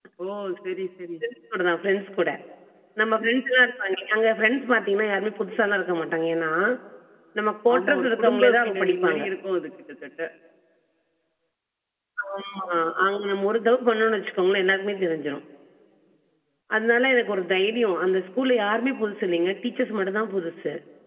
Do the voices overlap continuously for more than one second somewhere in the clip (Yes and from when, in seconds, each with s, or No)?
Yes, from 7.8 s